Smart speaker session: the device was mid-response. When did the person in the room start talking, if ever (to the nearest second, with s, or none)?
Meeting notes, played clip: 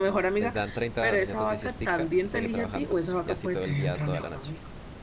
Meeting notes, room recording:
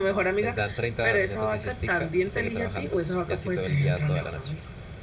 none